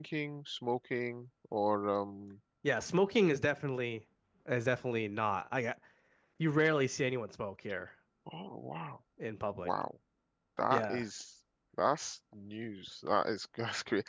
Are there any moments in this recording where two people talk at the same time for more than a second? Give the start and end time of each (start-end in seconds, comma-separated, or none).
none